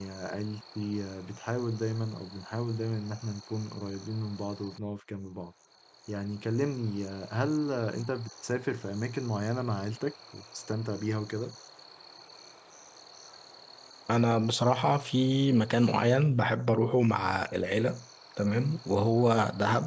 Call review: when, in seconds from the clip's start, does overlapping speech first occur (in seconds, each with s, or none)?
none